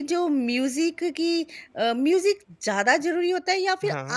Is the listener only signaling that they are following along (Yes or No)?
Yes